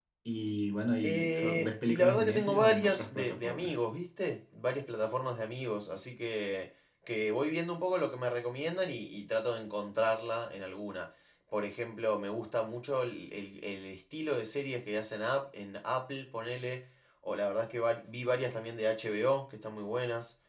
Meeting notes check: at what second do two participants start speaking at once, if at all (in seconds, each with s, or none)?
1.0 s